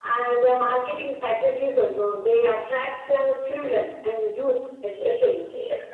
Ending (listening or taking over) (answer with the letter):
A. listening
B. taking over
B